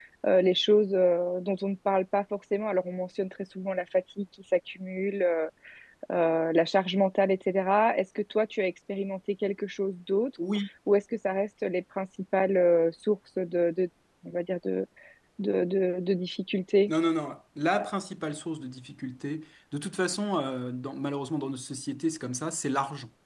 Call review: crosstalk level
none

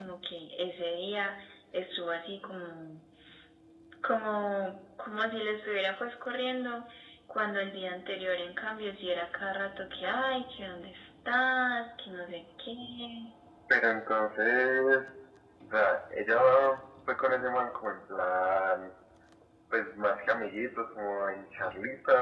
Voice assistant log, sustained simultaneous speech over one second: none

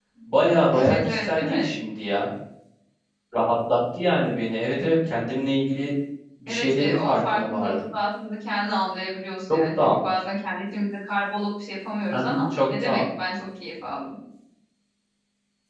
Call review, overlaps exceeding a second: present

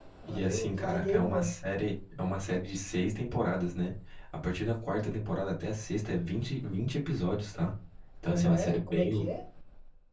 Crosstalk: present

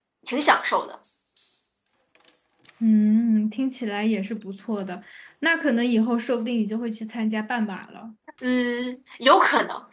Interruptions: none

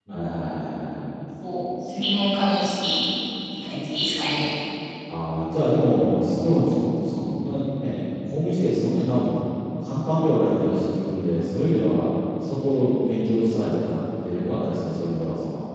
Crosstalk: none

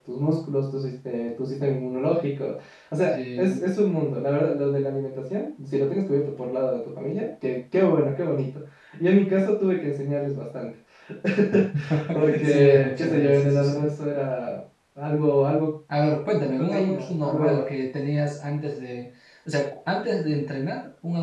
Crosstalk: present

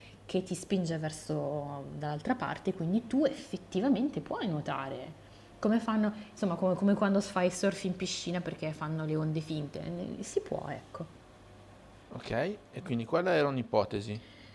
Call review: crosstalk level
none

